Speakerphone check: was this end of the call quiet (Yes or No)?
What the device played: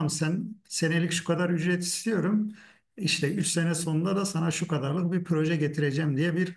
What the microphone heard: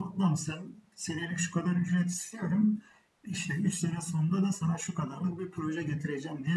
Yes